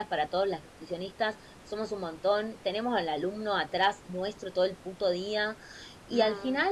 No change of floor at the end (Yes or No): Yes